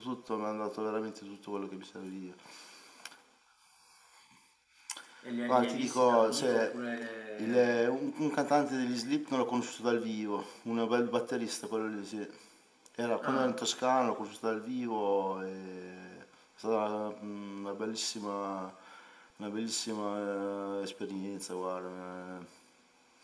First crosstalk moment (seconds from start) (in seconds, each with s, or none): 5.5 s